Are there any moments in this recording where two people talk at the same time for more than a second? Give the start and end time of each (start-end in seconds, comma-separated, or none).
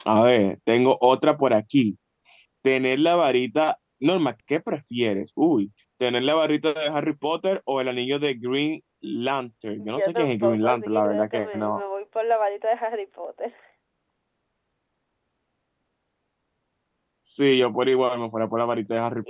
10.0-11.8